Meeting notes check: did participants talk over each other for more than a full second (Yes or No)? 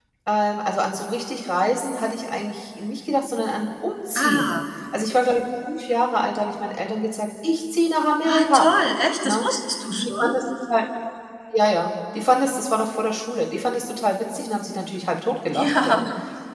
No